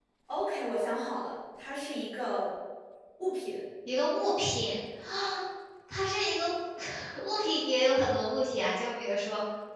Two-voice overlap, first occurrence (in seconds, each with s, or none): none